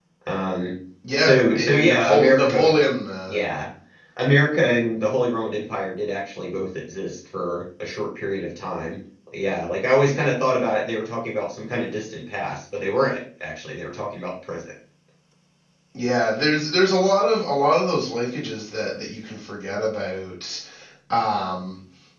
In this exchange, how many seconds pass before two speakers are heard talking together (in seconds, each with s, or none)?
1.2 s